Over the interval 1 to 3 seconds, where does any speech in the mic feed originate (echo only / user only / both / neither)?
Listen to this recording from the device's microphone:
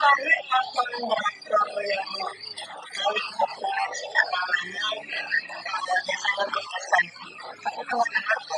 echo only